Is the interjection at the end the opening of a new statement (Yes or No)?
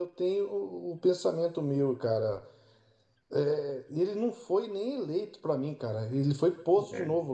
No